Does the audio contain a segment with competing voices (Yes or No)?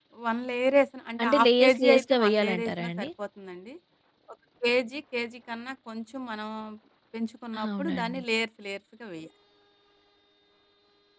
Yes